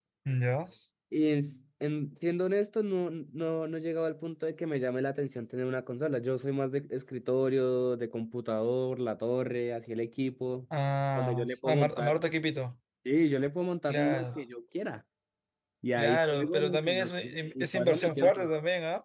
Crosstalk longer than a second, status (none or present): present